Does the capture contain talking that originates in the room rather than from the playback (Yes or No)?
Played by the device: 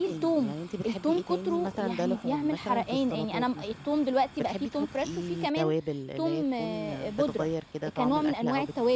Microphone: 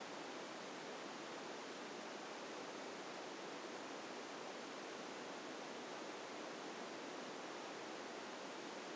No